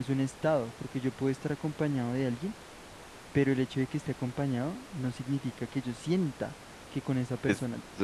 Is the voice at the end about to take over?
No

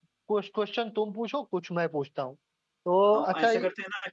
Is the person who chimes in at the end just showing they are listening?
No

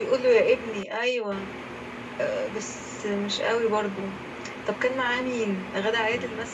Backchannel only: No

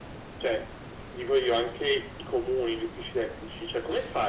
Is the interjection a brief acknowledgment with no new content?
Yes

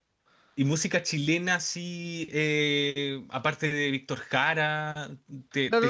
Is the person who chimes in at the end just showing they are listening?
No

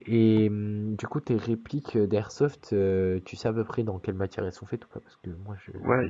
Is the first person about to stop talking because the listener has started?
Yes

